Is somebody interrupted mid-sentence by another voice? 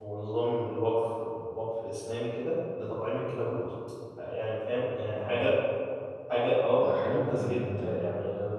Yes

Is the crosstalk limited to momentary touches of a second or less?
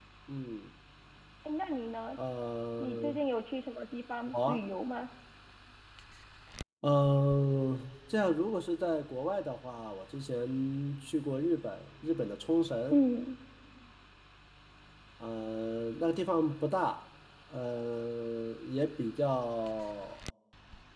Yes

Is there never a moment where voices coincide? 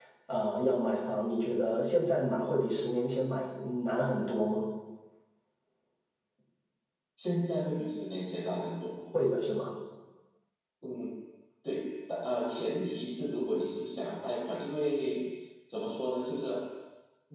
Yes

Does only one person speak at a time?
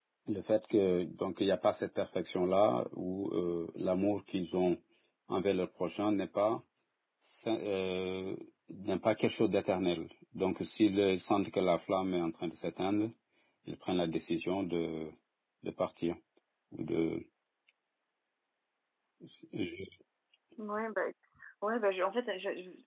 Yes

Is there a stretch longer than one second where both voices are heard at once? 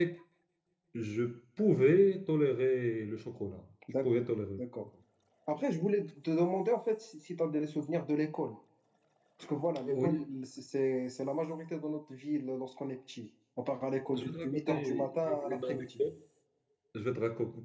Yes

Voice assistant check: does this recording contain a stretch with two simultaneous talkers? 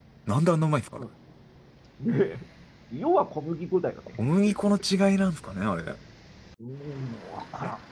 No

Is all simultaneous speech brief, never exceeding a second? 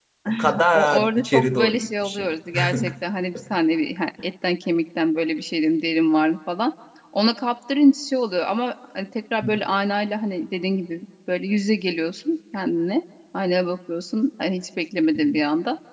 No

